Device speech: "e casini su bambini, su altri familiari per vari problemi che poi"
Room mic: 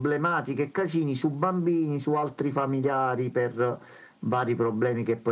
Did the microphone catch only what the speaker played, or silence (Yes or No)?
Yes